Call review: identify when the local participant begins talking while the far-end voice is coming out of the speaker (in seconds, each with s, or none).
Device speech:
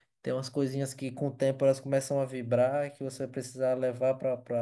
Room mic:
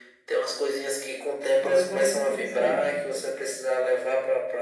1.6 s